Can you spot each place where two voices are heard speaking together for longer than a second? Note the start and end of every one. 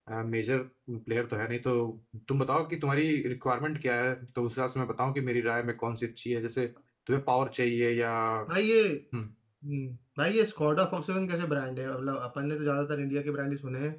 none

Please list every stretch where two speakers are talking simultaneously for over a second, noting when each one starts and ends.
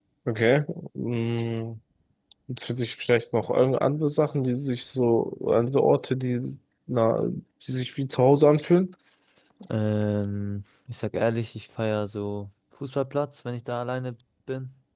none

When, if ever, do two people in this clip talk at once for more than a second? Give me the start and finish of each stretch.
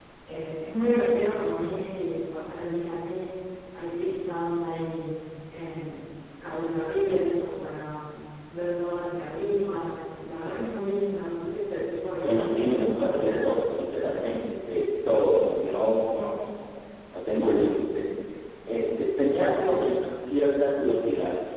12.2-13.5

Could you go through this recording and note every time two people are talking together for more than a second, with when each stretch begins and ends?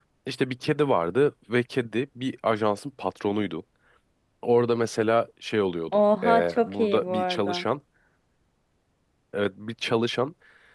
5.9-7.6

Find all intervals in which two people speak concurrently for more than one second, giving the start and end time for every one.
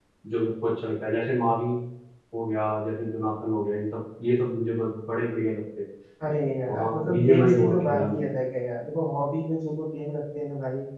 6.7-8.3

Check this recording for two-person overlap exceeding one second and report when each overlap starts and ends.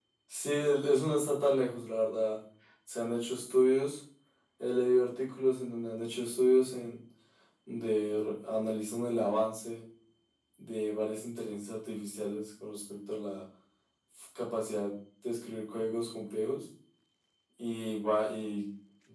none

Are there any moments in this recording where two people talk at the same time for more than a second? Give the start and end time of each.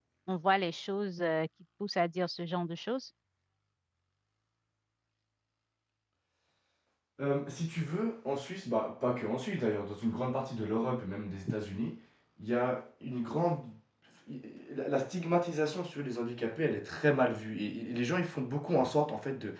none

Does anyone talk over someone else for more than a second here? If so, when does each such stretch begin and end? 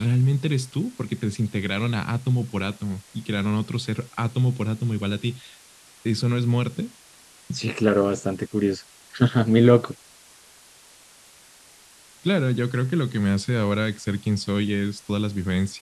none

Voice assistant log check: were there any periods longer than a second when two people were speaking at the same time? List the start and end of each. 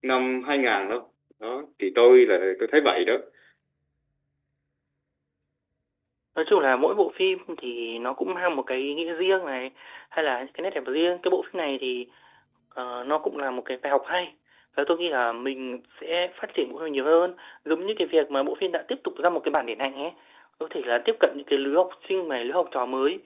none

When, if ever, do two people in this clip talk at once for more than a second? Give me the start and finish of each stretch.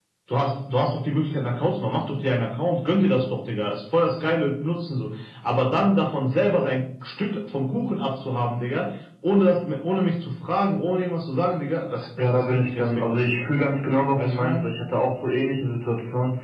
12.2-13.4

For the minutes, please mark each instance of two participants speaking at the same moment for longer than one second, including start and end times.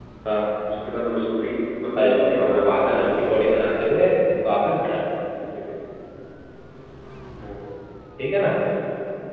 2.0-3.3

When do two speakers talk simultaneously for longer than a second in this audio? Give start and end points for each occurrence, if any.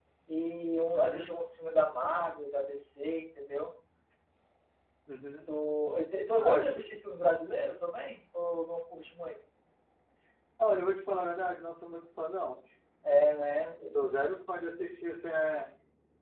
none

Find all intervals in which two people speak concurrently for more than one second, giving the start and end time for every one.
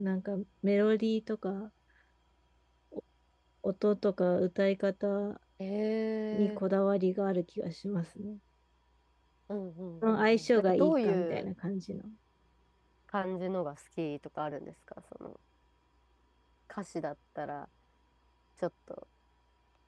10.0-11.4

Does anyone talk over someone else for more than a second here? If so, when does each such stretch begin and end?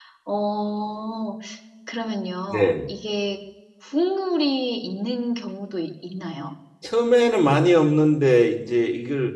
none

